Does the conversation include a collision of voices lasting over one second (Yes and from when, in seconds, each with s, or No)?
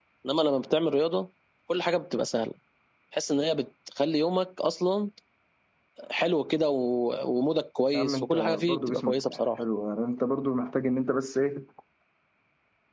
Yes, from 7.9 s